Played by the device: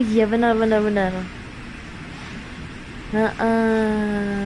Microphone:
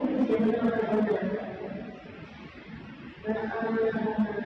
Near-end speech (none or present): none